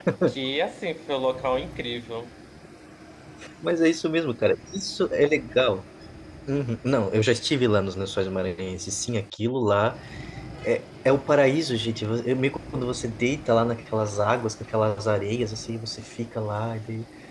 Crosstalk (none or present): none